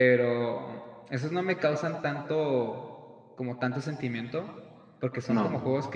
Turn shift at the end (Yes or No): No